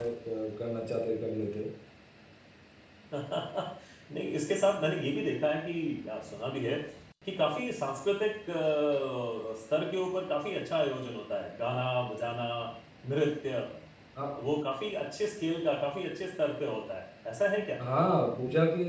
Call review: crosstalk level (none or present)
none